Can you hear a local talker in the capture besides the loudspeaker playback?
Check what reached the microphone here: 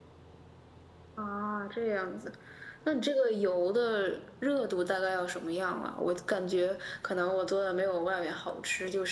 No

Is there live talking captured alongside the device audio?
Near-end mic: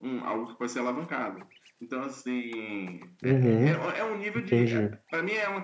Yes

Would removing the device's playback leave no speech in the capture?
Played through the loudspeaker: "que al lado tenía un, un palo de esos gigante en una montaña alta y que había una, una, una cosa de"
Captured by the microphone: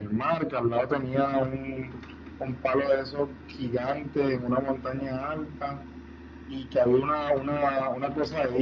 Yes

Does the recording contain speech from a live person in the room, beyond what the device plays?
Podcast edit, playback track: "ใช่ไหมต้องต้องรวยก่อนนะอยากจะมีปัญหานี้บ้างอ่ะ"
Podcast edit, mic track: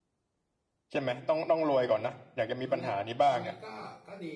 Yes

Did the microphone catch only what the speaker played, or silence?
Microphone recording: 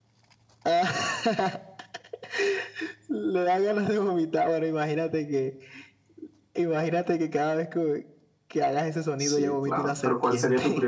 No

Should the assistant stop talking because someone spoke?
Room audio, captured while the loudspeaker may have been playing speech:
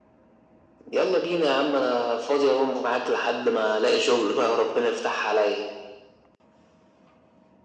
No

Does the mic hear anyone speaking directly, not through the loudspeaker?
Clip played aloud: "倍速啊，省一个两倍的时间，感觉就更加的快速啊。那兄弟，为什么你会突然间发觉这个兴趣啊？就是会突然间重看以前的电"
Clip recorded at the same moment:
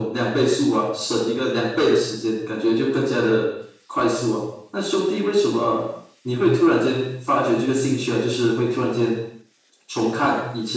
No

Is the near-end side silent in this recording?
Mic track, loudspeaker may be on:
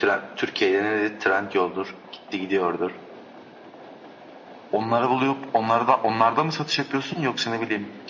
Yes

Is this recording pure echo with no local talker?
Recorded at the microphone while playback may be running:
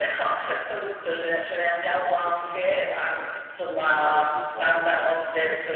No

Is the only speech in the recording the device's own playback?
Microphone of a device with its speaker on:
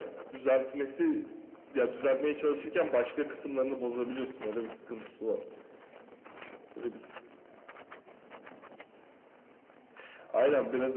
Yes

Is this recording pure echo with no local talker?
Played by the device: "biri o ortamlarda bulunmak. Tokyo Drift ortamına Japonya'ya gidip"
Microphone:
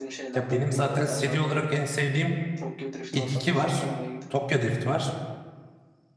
No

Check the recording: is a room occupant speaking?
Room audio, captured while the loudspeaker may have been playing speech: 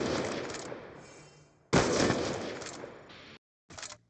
No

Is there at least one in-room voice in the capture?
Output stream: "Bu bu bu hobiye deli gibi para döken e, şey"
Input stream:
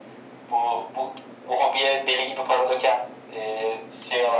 No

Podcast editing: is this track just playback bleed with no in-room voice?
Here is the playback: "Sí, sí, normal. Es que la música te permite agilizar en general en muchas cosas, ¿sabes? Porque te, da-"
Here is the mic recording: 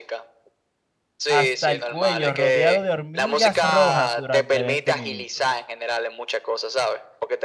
No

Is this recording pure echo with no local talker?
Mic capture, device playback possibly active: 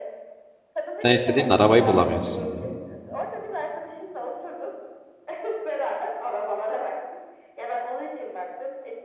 No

